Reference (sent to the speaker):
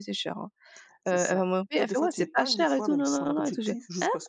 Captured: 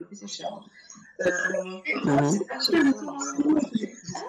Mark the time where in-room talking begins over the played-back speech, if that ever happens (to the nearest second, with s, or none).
2 s